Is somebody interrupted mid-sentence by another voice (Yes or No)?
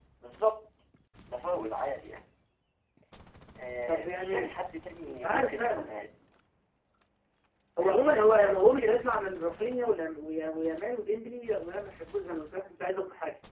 Yes